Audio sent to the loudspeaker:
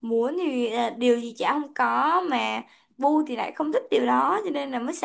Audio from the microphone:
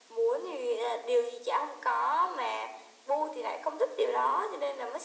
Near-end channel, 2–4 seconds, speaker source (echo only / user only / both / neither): echo only